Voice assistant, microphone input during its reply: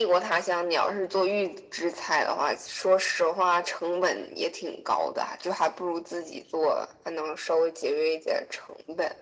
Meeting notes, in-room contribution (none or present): none